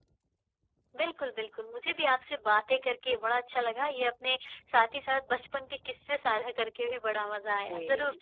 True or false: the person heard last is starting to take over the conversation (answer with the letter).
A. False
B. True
A